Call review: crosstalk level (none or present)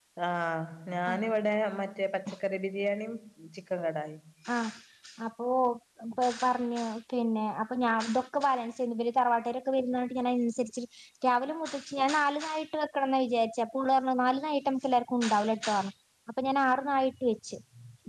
none